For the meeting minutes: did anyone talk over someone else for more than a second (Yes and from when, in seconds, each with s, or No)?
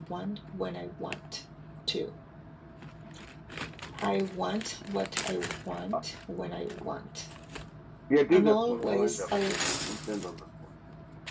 Yes, from 8.3 s